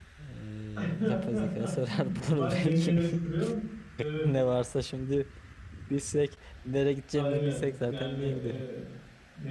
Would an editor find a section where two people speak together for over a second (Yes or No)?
Yes